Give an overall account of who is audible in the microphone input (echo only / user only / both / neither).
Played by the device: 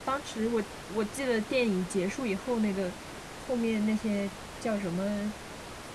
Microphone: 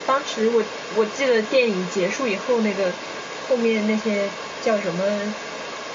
echo only